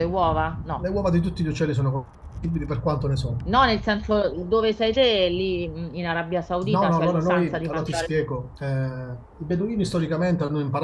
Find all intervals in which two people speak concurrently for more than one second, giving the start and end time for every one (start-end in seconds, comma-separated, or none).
6.7-8.1